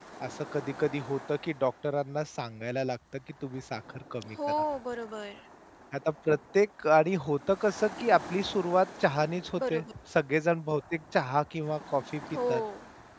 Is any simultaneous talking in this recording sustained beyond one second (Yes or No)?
No